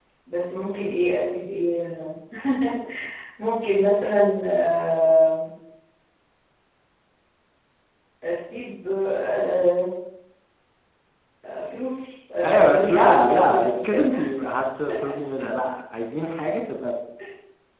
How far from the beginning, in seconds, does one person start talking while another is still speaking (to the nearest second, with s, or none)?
12 s